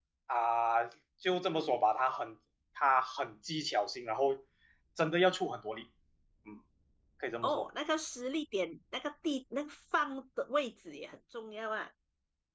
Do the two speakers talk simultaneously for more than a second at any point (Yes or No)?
No